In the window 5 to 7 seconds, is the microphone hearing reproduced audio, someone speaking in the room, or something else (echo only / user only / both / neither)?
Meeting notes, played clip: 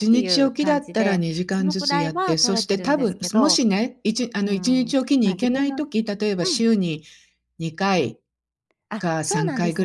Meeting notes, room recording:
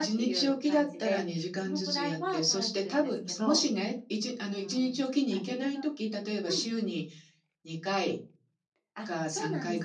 echo only